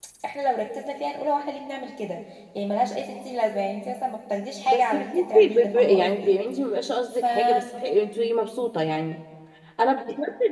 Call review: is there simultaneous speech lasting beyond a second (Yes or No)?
Yes